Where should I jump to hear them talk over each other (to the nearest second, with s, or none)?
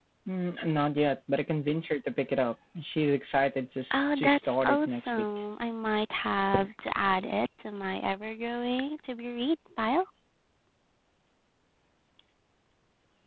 4 s